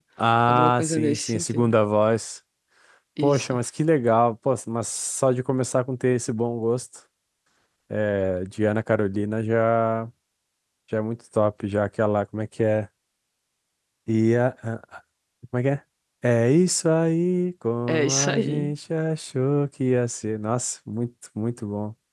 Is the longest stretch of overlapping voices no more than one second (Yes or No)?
No